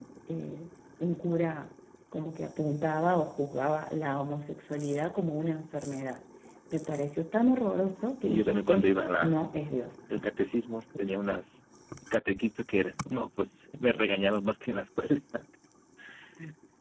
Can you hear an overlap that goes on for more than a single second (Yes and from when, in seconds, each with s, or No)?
Yes, from 8.2 s